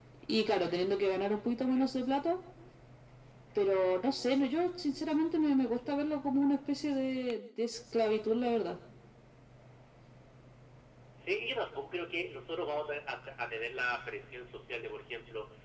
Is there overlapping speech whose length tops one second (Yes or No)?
No